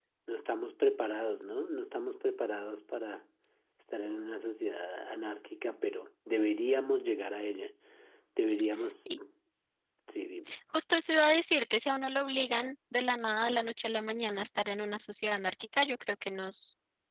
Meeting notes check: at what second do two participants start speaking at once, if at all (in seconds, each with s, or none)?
none